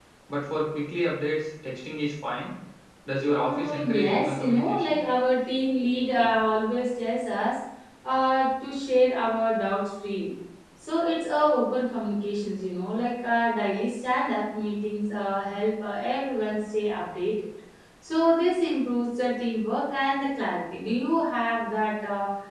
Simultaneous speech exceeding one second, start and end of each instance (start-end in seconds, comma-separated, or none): 3.3-5.0